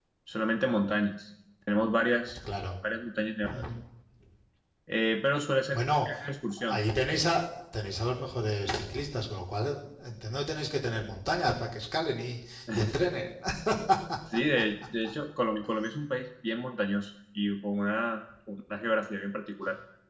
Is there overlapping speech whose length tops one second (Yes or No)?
No